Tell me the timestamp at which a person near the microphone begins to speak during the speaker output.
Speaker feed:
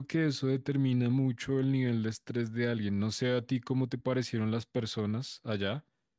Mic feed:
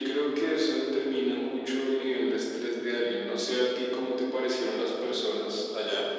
none

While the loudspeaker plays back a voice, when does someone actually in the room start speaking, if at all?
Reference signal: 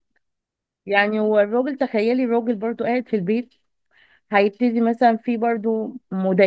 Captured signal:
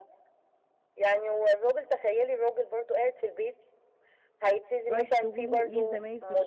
5 s

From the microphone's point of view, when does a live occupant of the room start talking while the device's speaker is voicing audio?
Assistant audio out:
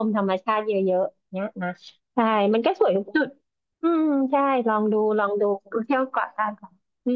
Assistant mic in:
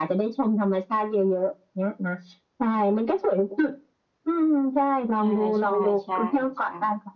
5 s

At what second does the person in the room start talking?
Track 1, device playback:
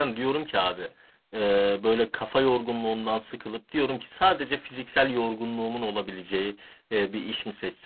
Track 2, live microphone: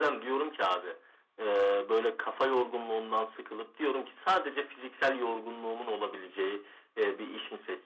none

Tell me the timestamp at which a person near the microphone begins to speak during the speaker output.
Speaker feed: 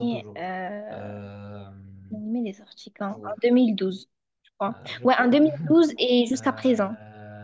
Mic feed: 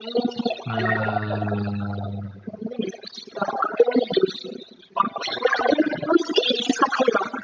1 s

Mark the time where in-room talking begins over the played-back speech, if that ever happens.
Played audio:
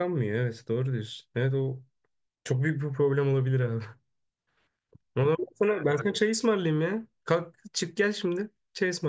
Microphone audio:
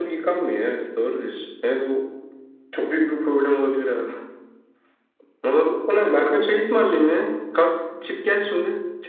none

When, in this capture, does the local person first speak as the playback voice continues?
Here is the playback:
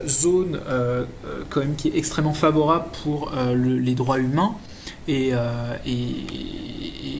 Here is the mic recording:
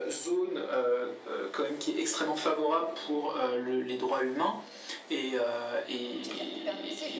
6 s

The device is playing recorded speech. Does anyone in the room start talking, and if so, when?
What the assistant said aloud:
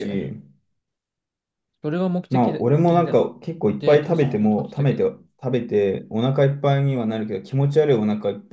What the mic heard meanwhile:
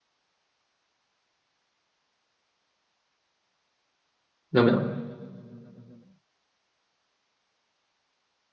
5 s

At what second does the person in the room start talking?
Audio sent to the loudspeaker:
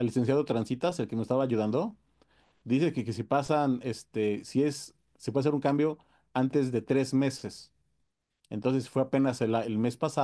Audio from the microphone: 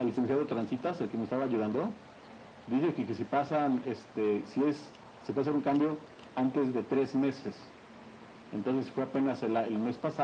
none

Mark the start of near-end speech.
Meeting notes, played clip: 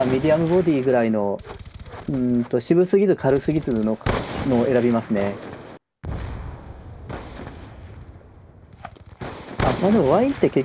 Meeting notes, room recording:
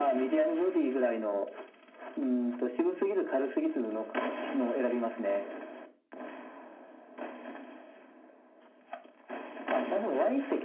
none

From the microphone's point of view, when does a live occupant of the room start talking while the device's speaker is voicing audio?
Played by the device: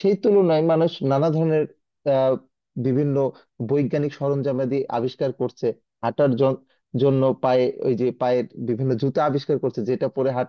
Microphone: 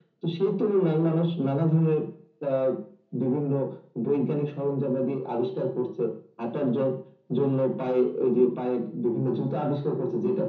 none

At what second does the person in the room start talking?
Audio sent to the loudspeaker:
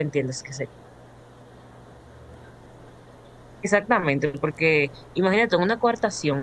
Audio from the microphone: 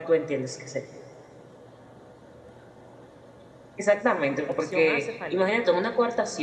4 s

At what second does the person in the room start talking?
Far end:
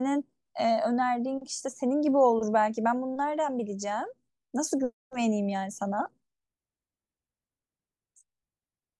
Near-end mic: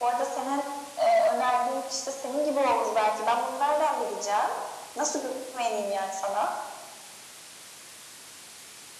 none

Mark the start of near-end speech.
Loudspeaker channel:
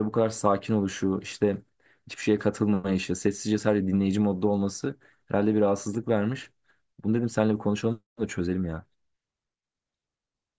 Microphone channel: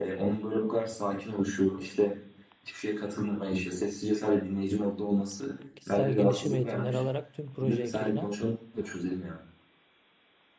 6 s

